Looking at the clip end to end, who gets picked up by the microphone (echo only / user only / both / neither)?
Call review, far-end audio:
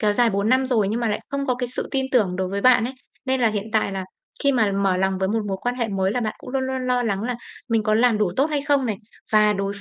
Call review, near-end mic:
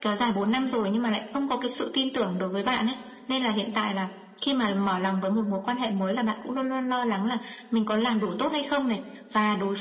echo only